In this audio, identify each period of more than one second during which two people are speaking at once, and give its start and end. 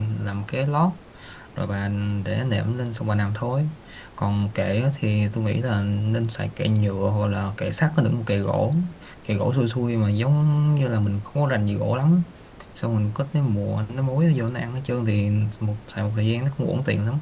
none

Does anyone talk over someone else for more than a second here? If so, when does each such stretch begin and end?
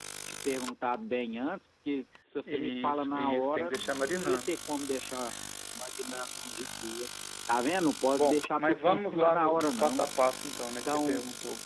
2.5-4.5, 8.1-10.0

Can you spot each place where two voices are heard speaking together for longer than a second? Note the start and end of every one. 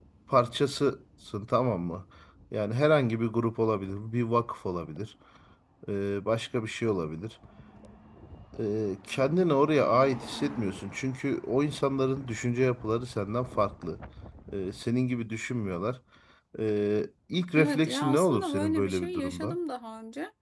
17.6-19.6

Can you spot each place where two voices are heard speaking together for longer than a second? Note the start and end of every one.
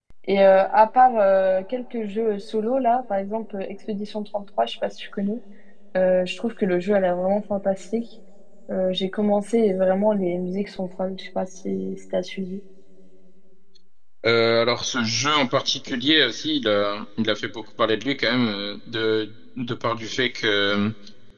none

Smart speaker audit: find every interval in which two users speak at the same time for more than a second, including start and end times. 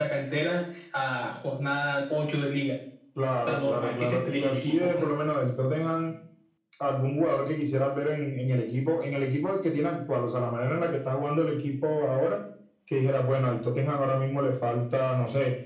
3.4-5.0

